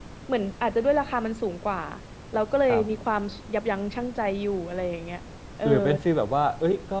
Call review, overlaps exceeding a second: none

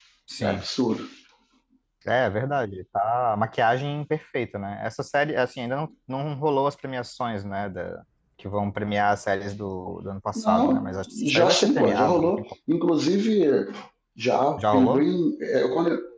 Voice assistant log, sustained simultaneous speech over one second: present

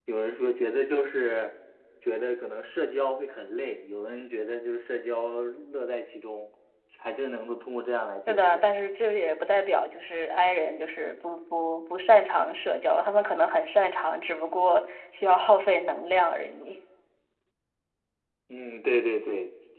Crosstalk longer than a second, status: none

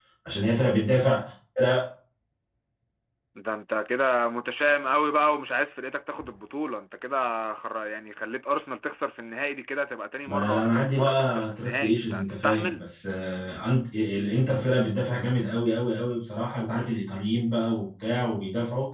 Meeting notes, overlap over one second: present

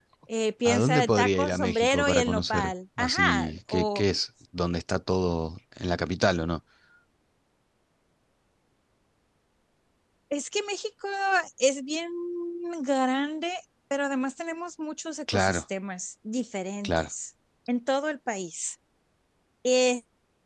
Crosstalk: present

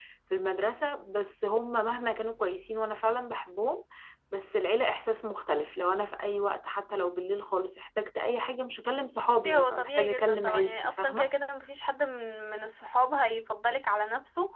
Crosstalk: present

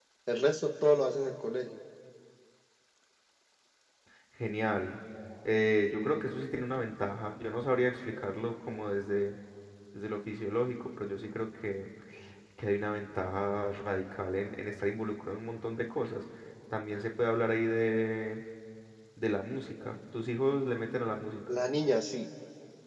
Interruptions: none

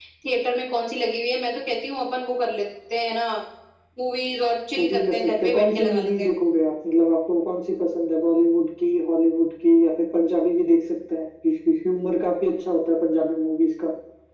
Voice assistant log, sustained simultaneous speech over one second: present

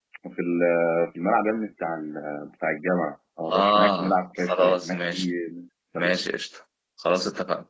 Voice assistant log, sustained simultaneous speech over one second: present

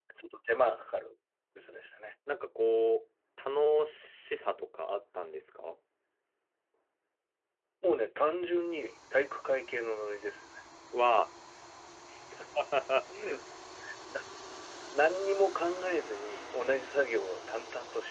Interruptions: none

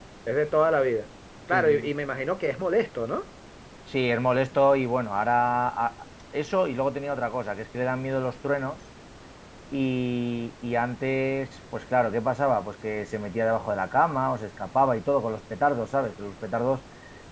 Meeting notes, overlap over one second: none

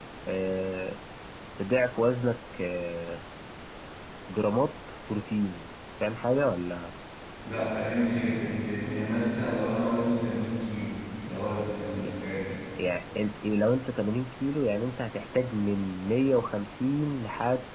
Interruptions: none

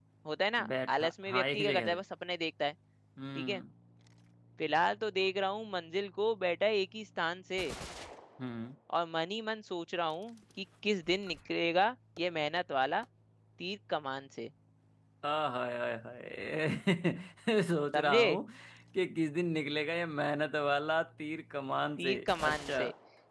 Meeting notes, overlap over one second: present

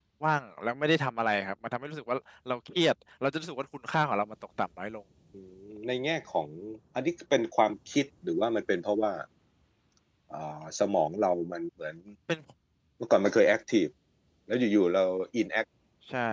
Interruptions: none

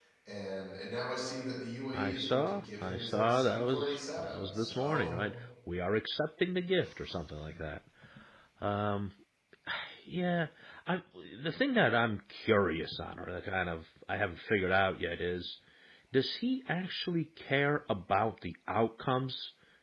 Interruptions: present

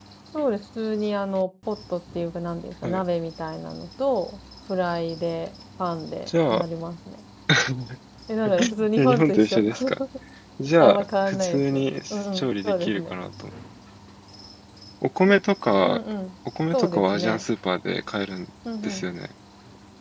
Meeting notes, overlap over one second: present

